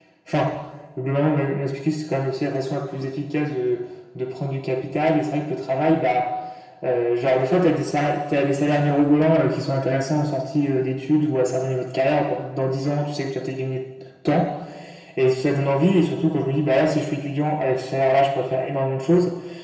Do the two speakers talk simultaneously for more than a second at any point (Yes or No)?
No